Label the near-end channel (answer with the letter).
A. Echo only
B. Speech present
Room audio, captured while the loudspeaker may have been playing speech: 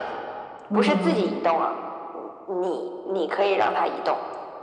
B